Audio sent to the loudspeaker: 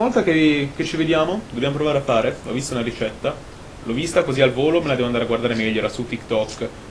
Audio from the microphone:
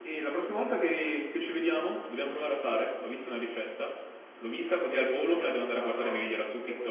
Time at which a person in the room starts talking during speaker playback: 4.9 s

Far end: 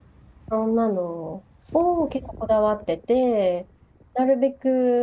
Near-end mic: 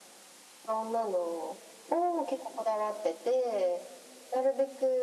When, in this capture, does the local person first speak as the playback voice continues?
none

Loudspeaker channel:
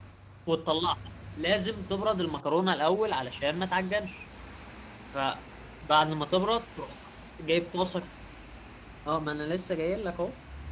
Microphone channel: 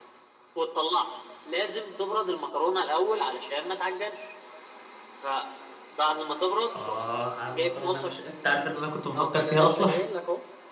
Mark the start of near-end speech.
6.8 s

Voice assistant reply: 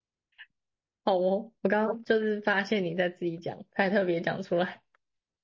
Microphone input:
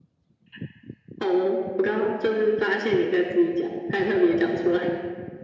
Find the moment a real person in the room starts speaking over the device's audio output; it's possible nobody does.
none

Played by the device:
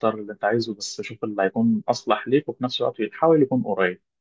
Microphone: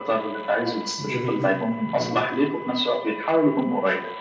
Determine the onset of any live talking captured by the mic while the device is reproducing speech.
1.1 s

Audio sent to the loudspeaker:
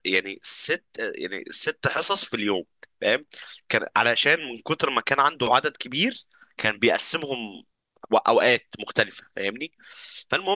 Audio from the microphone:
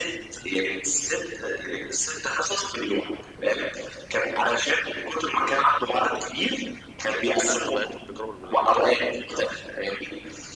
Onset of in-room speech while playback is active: 7.0 s

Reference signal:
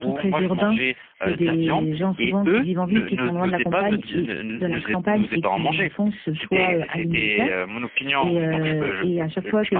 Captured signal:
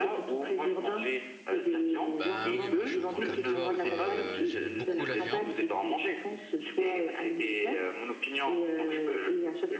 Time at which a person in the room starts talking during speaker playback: 2.2 s

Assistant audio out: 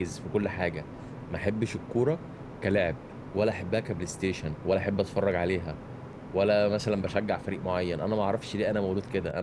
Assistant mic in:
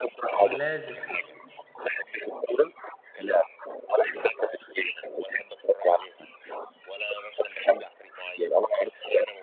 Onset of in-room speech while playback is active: 0.4 s

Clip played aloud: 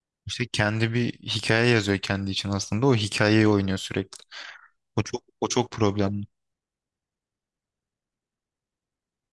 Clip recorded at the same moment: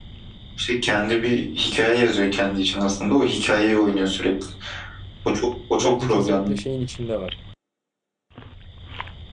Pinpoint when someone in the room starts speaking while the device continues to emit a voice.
5.8 s

